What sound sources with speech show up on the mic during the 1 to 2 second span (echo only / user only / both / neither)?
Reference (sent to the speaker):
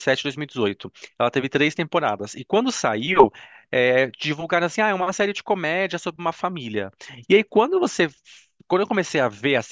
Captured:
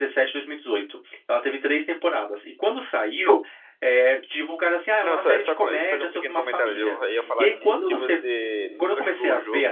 echo only